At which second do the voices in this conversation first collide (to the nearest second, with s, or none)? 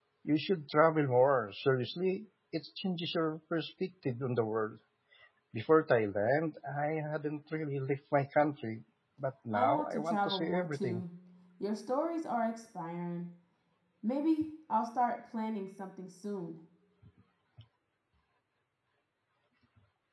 10 s